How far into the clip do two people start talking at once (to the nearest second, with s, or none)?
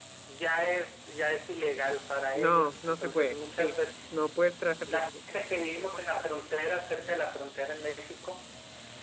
2 s